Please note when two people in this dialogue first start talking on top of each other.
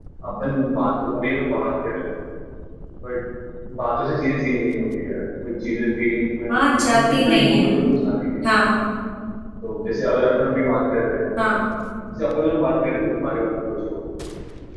6.5 s

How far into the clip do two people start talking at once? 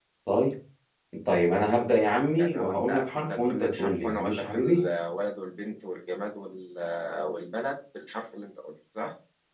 2.4 s

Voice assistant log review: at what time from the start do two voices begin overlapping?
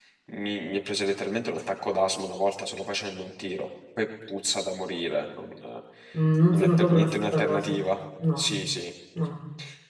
6.5 s

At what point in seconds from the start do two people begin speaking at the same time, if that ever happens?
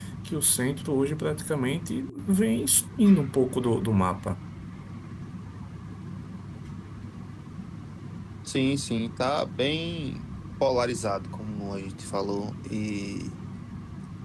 none

